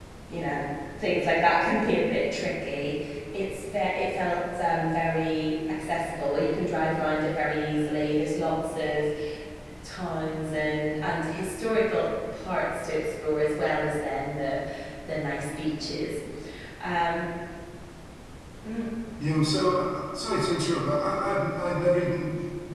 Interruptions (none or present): none